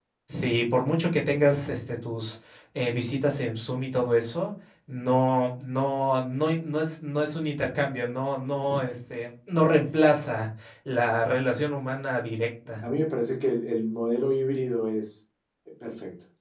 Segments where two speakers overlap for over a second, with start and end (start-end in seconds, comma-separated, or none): none